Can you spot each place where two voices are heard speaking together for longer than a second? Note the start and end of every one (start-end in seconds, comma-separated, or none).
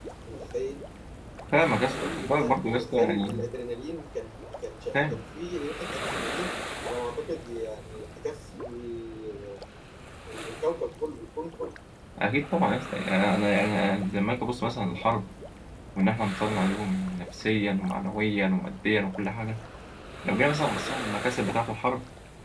2.0-3.5